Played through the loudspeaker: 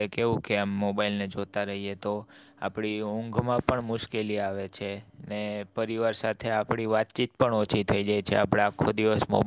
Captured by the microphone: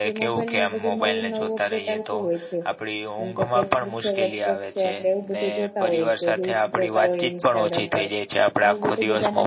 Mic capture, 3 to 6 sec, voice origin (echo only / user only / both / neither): both